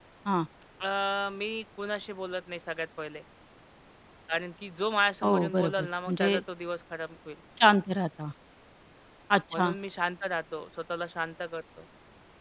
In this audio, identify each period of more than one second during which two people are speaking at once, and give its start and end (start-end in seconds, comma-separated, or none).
5.2-6.4